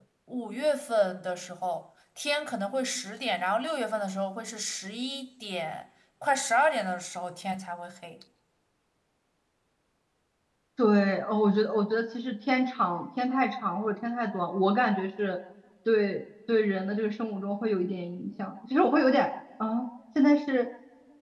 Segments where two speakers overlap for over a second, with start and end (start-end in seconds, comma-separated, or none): none